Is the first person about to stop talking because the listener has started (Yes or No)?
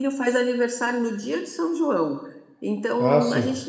No